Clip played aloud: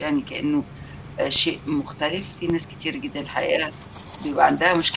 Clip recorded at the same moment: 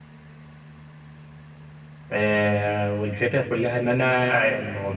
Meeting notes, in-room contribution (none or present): present